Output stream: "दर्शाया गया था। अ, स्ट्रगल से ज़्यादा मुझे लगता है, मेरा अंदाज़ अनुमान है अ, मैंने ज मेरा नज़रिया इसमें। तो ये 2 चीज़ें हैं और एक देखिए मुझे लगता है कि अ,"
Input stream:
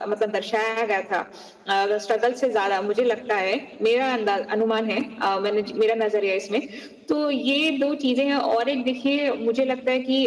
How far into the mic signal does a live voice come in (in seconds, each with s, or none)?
none